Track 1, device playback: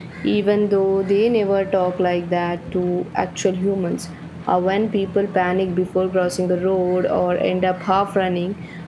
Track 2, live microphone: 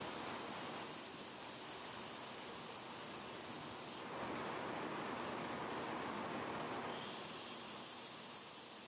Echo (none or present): none